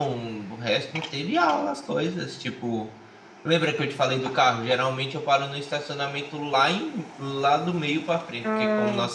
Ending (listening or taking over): listening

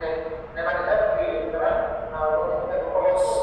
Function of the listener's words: listening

